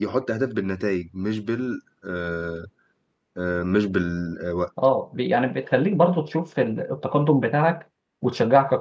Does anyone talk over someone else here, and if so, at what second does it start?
none

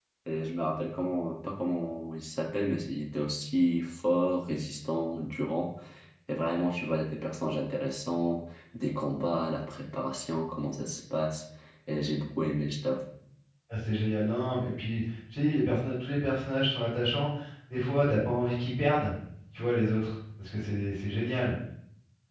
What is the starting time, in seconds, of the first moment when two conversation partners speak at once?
none

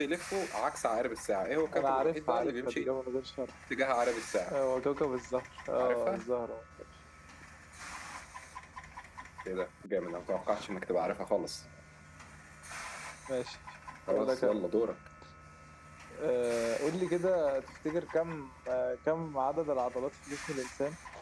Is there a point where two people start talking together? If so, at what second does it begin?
1.6 s

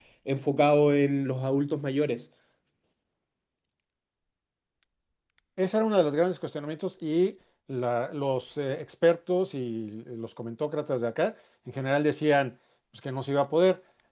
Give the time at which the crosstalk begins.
none

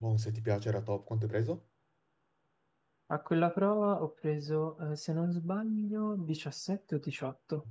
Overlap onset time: none

